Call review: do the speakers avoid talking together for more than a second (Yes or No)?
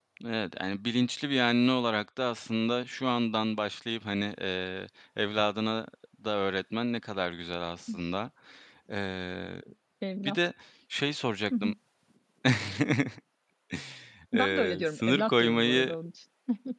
No